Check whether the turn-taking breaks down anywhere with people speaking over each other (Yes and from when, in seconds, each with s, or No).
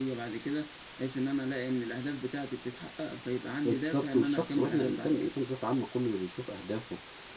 Yes, from 3.6 s